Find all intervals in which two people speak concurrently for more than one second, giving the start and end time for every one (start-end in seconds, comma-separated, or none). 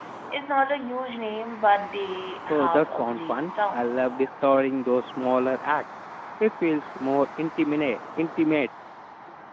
2.5-4.0